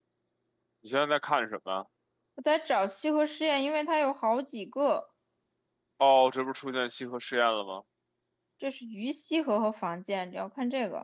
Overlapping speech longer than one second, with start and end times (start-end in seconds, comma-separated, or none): none